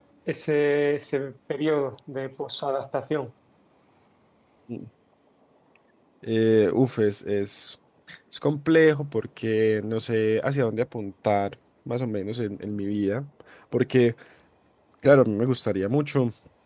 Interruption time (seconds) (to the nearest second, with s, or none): none